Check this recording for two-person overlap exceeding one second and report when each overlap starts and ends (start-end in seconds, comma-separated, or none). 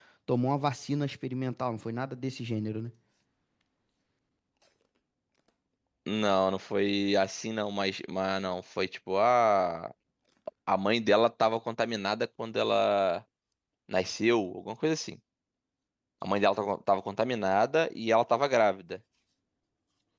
none